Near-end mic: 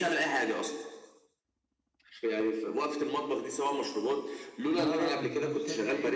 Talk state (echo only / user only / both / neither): both